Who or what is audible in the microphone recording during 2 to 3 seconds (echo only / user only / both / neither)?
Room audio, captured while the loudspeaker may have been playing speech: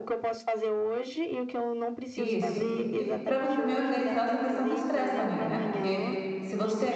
both